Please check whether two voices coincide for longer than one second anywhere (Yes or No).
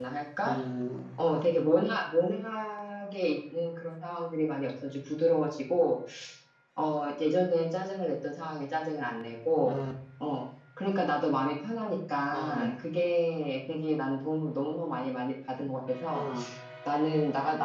No